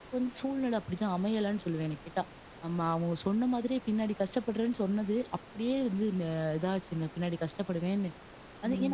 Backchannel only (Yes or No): No